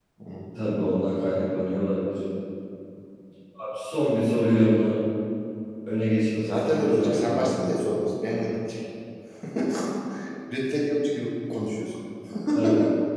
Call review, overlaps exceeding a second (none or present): present